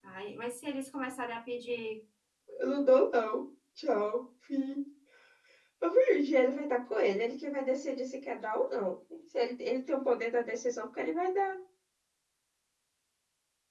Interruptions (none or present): none